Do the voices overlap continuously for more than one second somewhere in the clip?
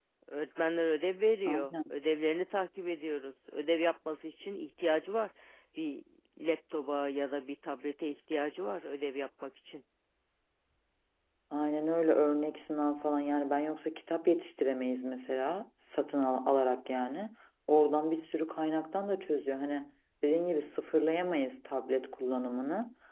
No

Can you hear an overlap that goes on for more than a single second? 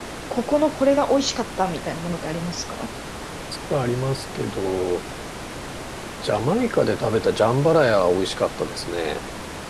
No

